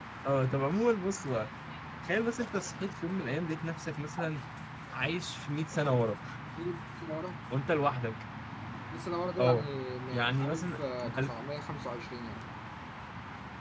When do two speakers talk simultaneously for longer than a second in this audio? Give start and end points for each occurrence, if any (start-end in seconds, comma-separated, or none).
10.1-11.3